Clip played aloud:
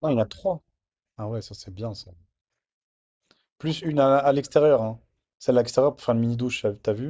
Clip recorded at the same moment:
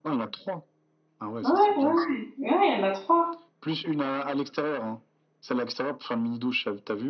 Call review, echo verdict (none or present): present